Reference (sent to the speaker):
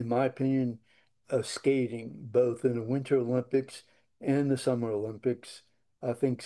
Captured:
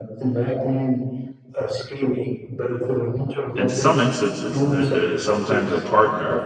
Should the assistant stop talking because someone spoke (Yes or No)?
Yes